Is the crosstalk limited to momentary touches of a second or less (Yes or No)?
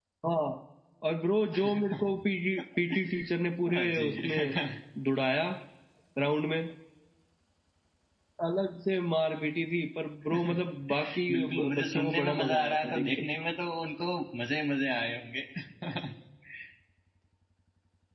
No